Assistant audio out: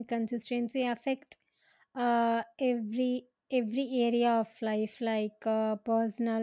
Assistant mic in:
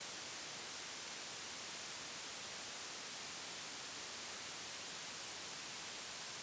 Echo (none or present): none